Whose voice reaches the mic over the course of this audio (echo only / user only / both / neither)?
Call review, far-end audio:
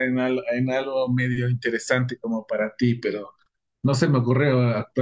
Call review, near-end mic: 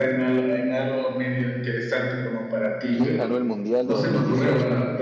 both